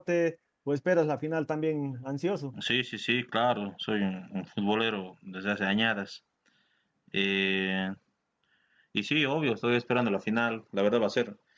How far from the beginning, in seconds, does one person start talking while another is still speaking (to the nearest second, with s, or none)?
none